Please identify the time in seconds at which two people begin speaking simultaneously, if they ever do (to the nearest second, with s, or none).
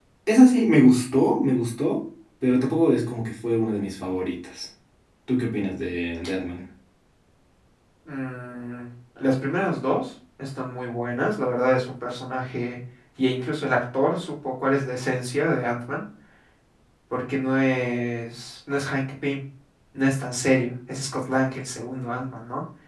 none